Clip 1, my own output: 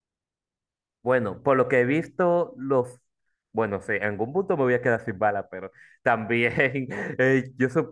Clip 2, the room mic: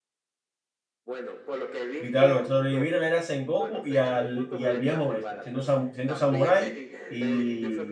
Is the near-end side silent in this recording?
No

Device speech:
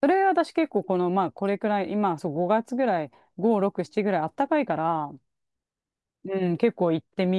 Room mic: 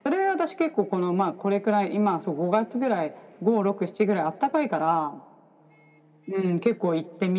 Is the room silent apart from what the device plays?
Yes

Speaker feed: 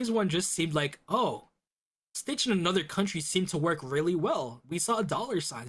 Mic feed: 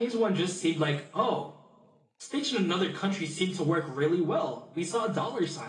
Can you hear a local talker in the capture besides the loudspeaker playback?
No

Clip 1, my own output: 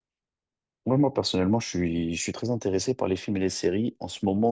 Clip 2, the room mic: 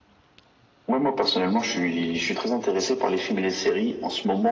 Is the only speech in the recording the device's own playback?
Yes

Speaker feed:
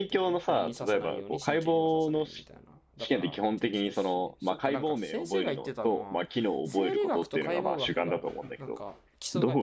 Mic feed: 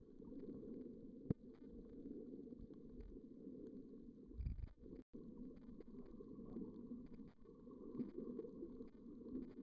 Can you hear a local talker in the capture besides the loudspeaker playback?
No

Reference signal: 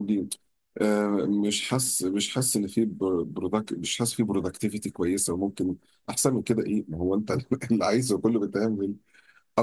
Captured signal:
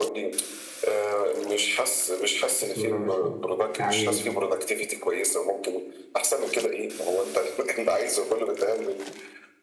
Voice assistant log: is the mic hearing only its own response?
No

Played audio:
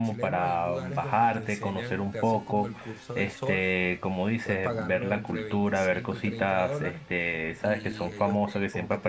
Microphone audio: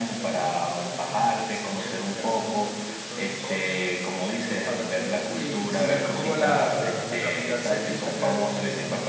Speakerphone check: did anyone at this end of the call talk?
Yes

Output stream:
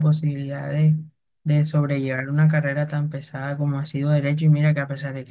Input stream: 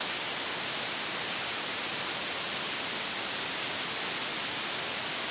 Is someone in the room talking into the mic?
No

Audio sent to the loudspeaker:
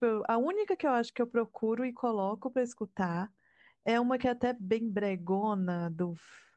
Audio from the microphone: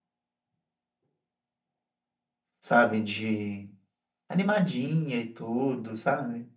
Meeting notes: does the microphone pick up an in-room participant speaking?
Yes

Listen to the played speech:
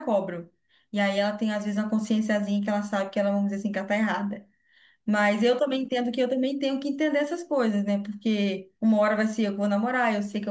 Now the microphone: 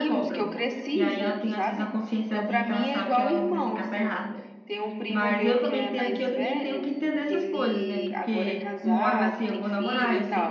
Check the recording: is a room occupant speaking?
Yes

